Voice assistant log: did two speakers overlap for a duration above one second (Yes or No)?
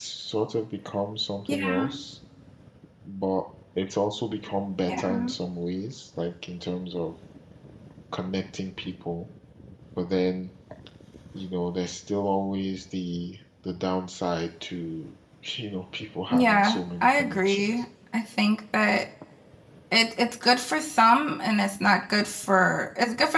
Yes